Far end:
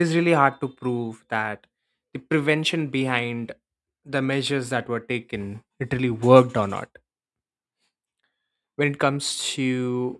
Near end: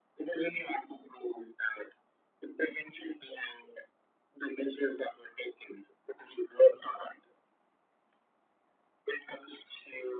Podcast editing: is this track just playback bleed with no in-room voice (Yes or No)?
Yes